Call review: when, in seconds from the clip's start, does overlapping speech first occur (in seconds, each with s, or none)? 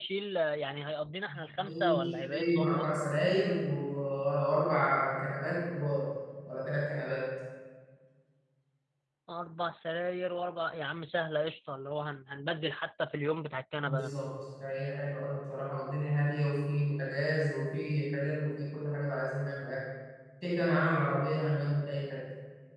1.6 s